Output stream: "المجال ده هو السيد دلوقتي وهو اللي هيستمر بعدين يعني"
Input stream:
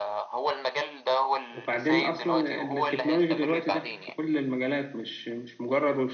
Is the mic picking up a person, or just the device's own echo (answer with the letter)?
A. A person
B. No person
A